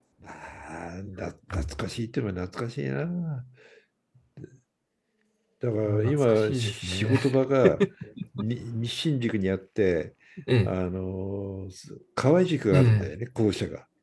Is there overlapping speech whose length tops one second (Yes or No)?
Yes